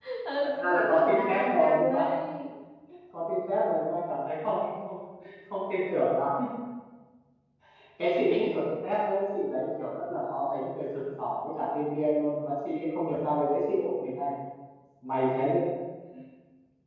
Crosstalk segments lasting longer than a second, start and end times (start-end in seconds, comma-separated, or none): 0.6-2.1